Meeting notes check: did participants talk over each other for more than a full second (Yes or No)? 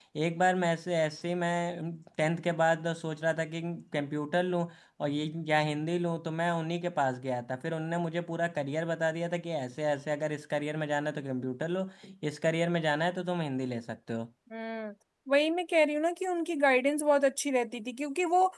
No